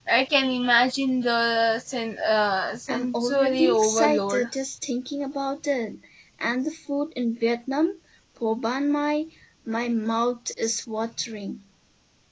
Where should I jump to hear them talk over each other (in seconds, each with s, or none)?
2.9 s